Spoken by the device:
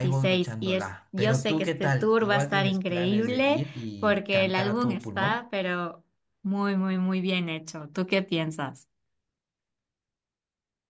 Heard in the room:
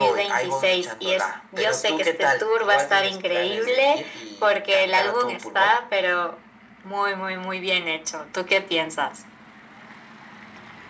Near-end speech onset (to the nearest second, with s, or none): none